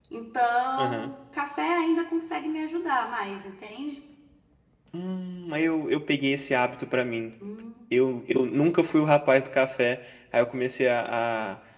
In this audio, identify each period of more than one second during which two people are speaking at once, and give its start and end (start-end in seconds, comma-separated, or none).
none